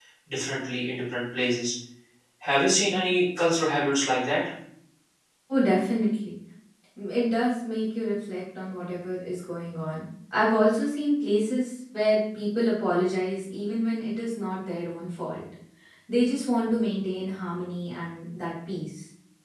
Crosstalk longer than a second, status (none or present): none